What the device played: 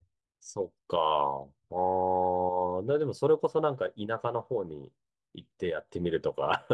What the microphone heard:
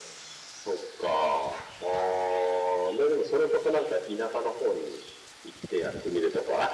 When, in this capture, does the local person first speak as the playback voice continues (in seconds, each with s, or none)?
none